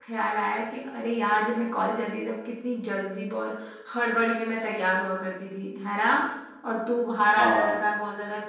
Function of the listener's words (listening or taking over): listening